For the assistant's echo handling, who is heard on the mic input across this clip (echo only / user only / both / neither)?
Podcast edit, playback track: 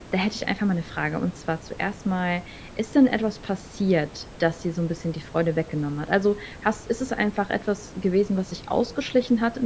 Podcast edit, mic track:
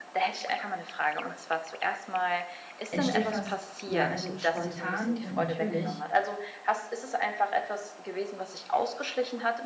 both